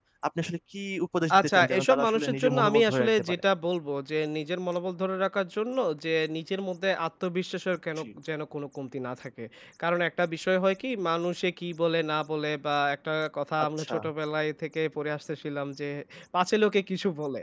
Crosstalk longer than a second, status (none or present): present